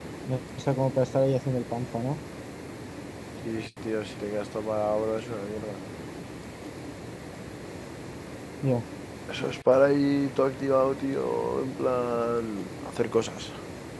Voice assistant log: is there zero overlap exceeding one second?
Yes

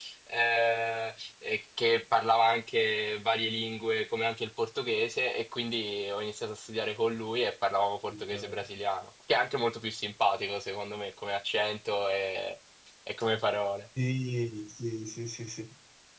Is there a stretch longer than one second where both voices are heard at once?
No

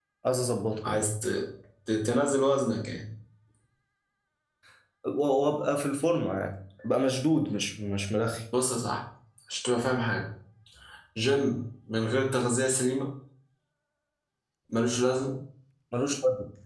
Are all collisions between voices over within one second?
Yes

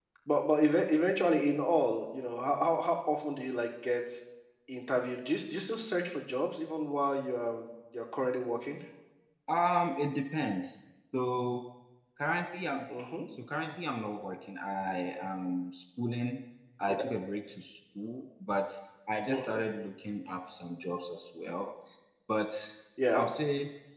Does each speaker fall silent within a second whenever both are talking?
Yes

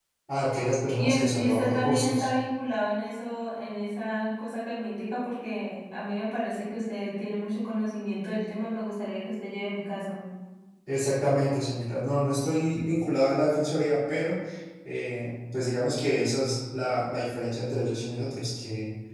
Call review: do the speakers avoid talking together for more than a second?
No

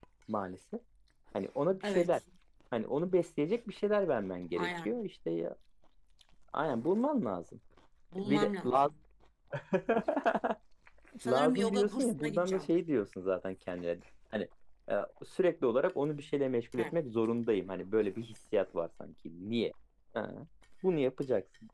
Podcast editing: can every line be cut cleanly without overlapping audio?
No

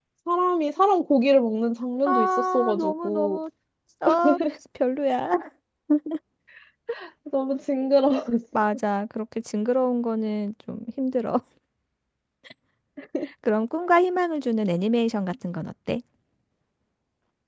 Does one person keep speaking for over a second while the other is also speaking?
Yes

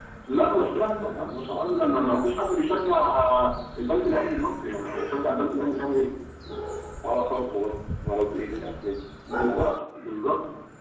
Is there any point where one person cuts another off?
Yes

